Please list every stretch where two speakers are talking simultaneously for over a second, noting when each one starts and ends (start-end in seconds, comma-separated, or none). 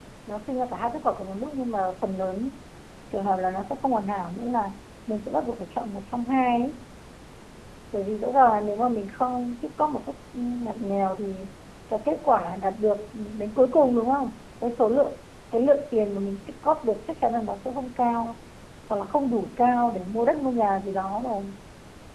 none